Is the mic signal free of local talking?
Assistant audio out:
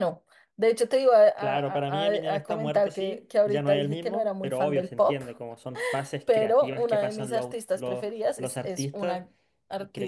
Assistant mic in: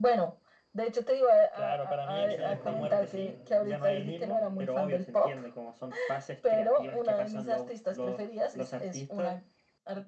No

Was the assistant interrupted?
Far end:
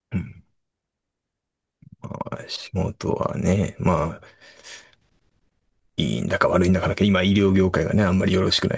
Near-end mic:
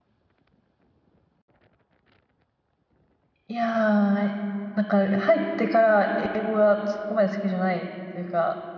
Yes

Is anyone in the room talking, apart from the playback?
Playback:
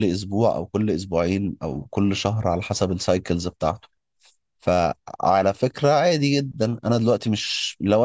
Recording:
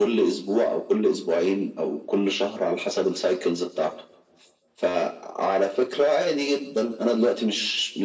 No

